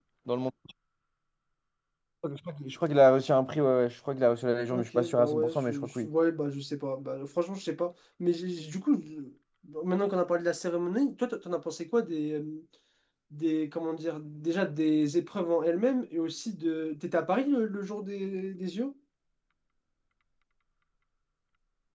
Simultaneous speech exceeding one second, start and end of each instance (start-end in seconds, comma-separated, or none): 4.7-6.1